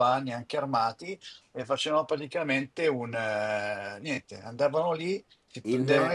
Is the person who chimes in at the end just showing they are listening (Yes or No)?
Yes